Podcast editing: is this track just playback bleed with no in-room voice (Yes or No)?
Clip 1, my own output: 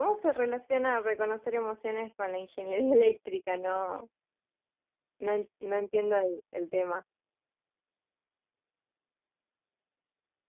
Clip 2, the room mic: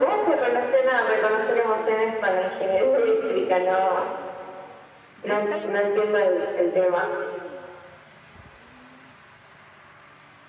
No